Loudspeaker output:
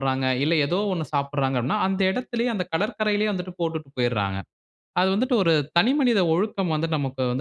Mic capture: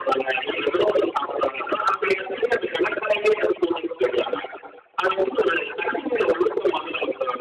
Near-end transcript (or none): none